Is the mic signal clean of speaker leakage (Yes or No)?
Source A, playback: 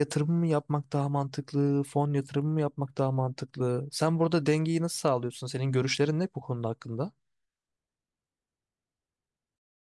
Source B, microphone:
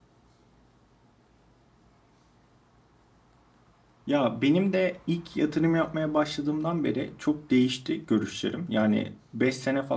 Yes